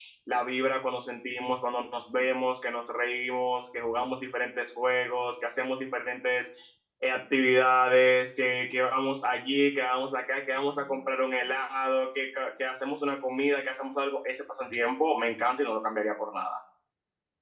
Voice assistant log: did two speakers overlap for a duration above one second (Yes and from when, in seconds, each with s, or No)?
No